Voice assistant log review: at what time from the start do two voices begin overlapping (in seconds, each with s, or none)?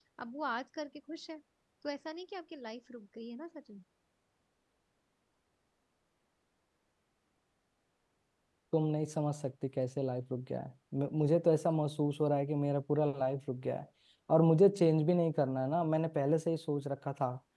none